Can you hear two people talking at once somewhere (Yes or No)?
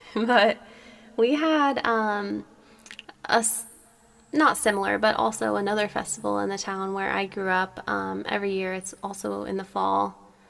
No